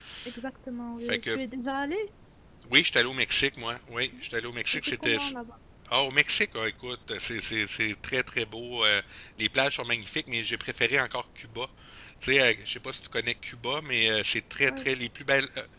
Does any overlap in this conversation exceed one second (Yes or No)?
No